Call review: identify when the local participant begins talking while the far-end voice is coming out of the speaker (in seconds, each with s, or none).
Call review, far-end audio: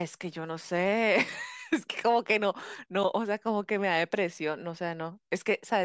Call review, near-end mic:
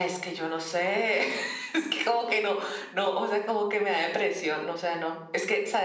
none